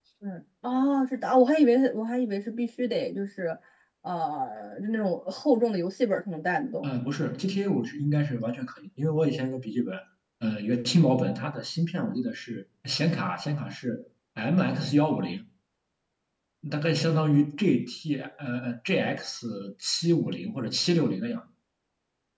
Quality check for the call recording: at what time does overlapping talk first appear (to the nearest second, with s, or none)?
none